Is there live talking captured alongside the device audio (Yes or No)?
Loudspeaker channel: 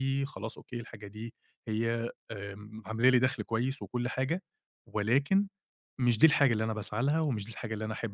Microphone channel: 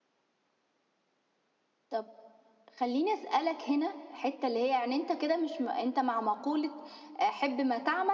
Yes